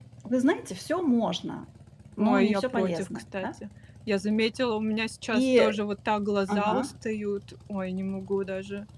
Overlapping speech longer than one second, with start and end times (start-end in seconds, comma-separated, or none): 2.2-3.5